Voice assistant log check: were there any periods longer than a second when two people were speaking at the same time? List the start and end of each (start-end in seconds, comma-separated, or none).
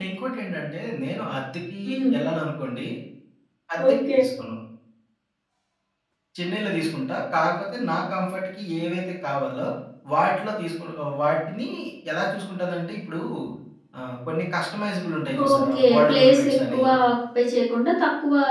15.5-16.8